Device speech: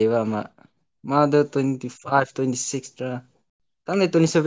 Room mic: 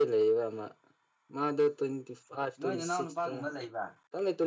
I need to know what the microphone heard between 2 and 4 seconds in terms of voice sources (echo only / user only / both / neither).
both